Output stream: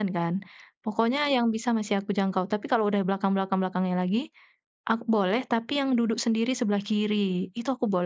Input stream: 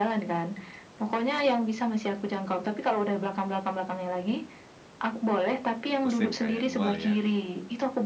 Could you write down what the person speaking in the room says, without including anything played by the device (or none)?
Pusing, Kak, ya, mual, ya.